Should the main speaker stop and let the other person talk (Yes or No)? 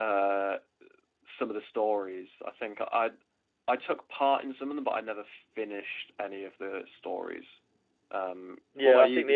Yes